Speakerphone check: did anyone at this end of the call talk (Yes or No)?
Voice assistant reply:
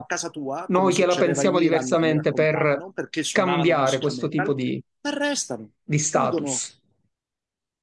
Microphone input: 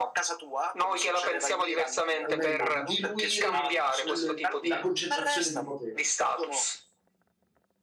Yes